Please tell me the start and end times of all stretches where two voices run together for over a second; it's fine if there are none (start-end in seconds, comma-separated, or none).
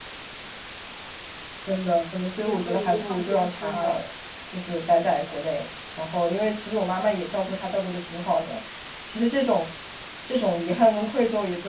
2.4-4.0